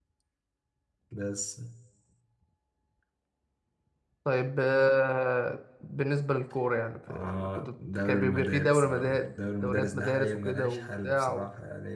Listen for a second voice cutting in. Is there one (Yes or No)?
Yes